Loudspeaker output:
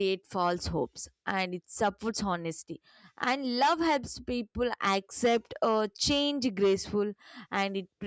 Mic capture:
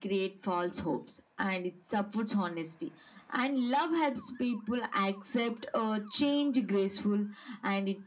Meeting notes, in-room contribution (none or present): none